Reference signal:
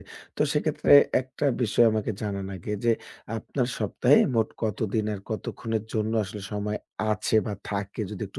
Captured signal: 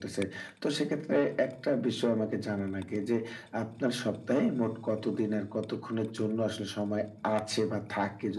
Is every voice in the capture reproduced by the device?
Yes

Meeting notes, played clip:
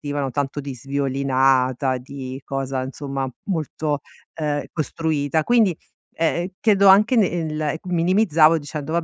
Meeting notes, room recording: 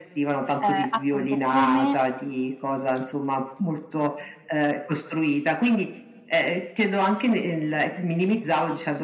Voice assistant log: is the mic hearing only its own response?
No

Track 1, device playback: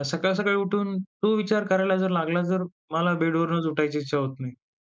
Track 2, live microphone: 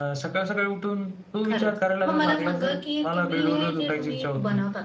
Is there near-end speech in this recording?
Yes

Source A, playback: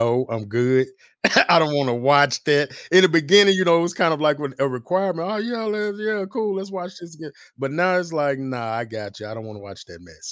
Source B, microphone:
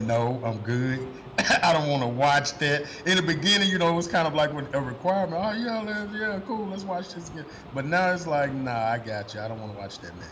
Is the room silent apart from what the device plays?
Yes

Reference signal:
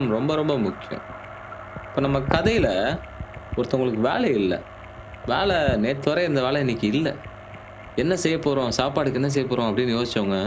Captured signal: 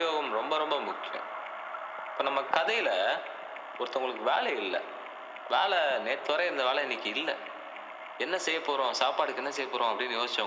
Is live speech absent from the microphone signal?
Yes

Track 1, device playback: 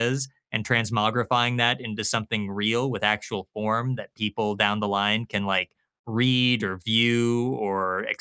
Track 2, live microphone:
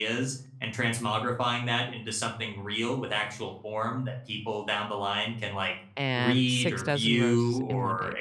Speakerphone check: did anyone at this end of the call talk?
Yes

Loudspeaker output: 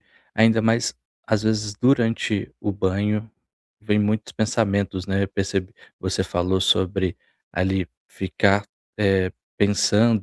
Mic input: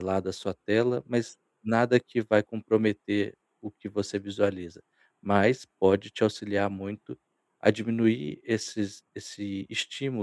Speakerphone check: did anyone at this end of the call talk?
Yes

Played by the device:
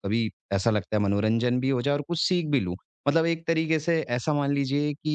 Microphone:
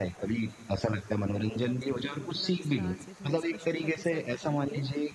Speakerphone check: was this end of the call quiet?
No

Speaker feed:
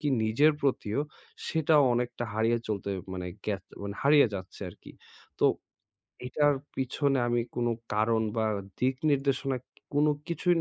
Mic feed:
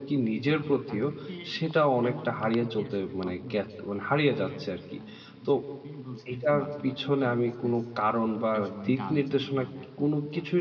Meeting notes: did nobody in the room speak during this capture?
No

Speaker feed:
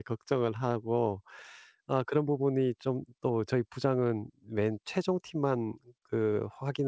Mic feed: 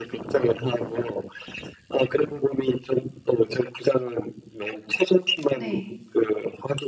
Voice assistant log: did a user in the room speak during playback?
Yes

